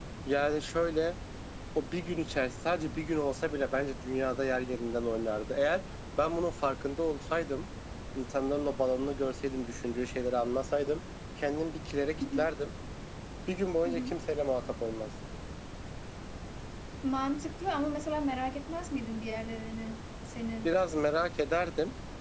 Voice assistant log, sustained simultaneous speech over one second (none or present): none